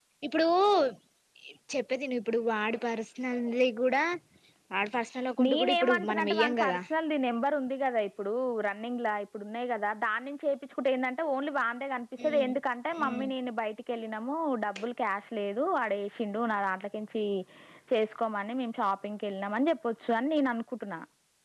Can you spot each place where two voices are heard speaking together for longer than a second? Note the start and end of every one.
5.5-6.8

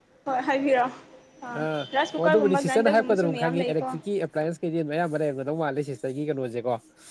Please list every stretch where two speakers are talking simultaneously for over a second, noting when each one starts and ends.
2.2-3.8

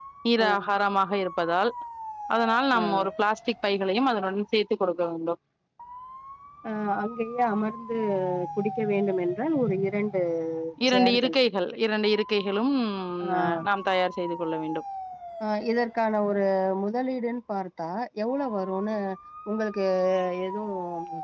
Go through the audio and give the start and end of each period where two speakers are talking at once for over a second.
none

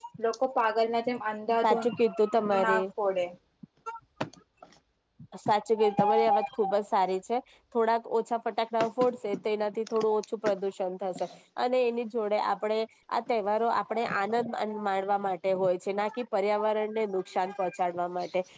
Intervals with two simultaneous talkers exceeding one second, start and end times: none

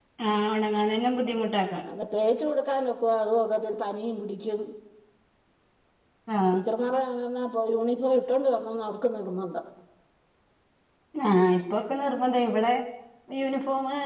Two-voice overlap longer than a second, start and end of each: none

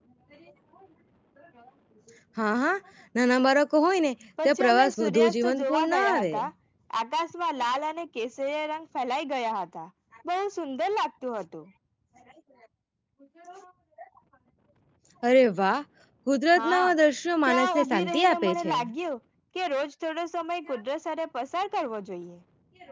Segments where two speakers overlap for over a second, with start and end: 4.5-6.3, 17.5-18.7

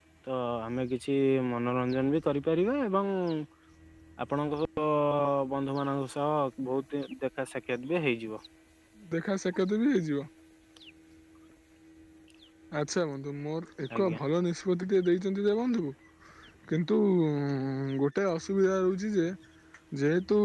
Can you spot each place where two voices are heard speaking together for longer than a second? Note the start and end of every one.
none

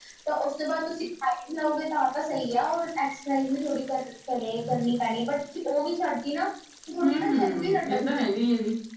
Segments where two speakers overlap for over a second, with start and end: 7.0-8.4

